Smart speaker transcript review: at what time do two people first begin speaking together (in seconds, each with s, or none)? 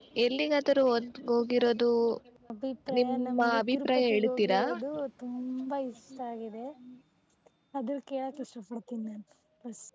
3.0 s